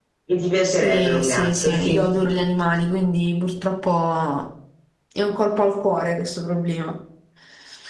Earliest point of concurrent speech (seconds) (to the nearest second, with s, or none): 1 s